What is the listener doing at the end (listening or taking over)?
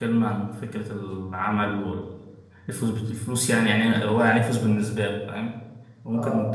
taking over